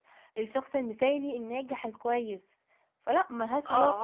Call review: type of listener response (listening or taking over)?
taking over